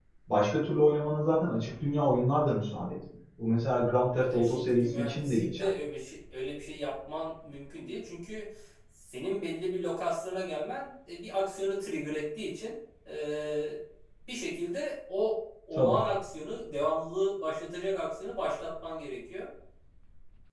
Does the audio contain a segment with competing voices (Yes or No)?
Yes